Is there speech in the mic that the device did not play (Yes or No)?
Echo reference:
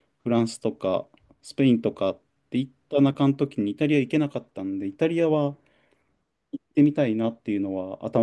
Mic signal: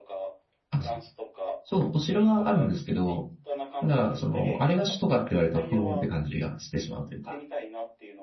Yes